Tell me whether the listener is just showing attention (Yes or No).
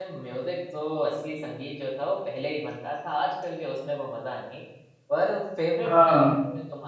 Yes